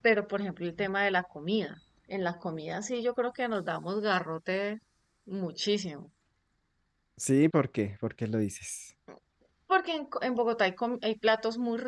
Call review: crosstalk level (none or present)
none